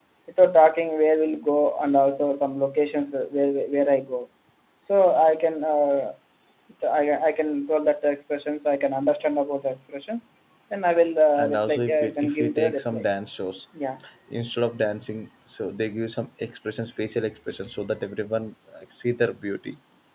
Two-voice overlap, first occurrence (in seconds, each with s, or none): 11.4 s